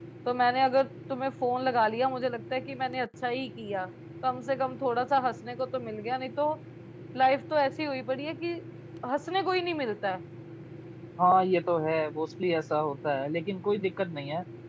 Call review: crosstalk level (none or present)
none